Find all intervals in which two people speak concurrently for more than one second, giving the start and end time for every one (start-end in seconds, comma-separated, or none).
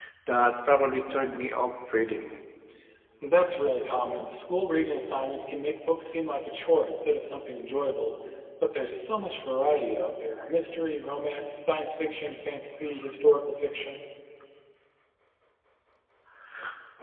none